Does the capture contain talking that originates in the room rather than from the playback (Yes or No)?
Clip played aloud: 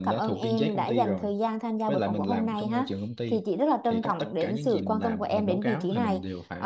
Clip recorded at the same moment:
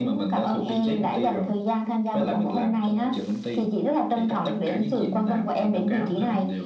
No